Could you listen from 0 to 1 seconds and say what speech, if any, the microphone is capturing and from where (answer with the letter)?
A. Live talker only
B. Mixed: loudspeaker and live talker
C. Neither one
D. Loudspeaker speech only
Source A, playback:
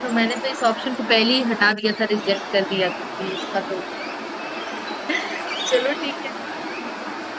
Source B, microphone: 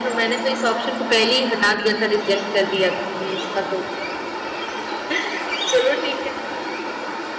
D